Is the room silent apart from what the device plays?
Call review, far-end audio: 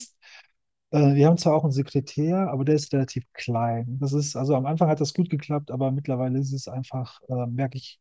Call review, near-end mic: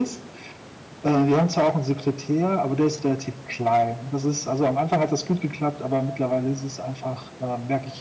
Yes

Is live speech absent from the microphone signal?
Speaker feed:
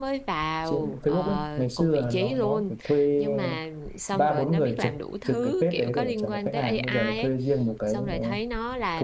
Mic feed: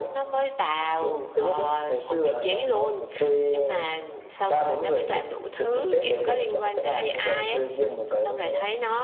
Yes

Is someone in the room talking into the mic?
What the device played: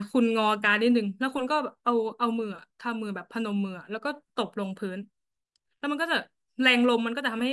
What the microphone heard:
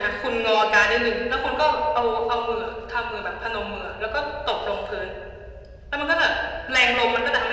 No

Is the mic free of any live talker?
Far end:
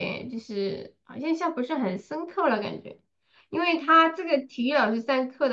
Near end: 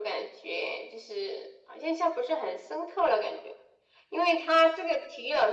Yes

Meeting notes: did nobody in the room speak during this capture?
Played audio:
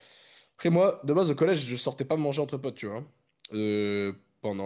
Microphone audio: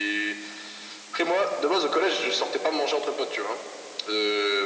Yes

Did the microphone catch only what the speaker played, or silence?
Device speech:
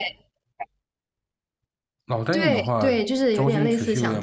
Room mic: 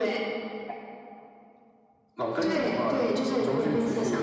No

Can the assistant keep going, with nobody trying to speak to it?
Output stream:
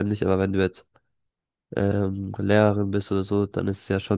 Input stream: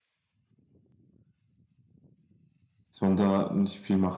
No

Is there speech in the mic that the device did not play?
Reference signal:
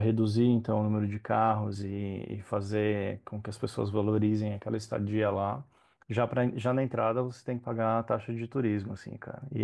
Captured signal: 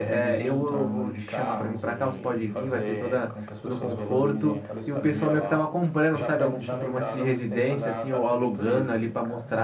Yes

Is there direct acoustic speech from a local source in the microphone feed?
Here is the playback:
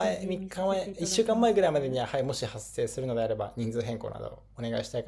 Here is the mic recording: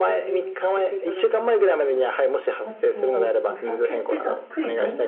Yes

